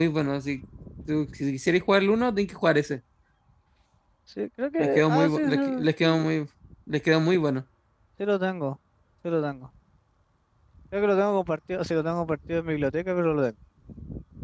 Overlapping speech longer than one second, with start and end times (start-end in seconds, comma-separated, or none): 4.8-6.2